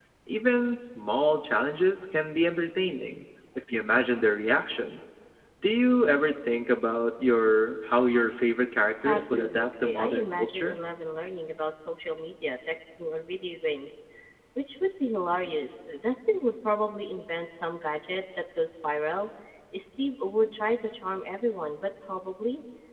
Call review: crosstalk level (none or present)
present